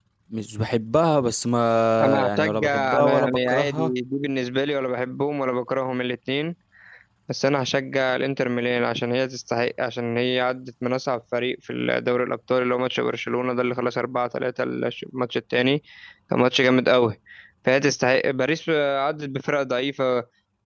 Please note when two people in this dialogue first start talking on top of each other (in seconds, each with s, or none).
2.2 s